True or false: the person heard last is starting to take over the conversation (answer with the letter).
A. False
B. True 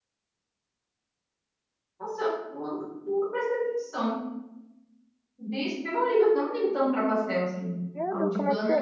B